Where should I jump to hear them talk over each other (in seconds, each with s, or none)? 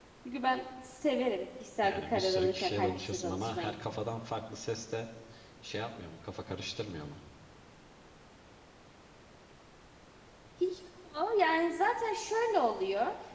1.8 s